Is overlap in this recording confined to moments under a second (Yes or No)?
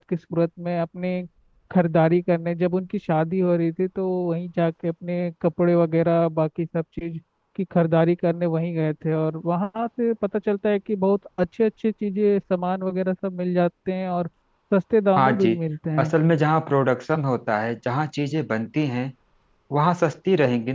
Yes